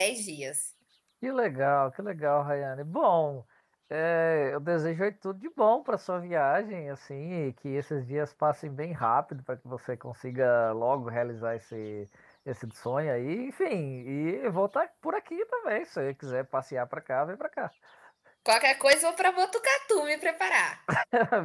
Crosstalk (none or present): none